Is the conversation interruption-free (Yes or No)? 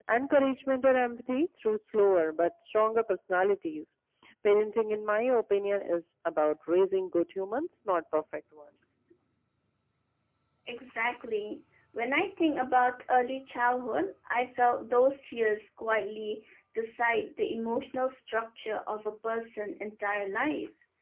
Yes